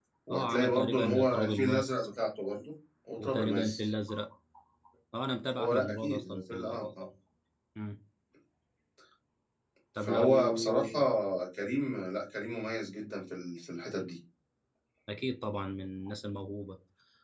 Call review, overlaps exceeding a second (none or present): present